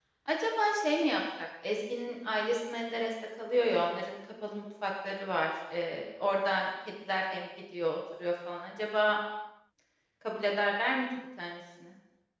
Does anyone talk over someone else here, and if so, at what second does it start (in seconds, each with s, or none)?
none